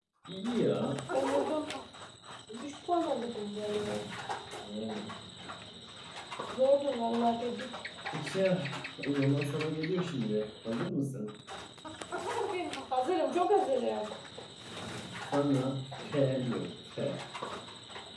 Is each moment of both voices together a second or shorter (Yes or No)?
Yes